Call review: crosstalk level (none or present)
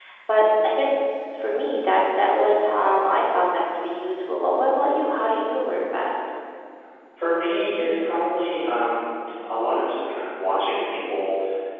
none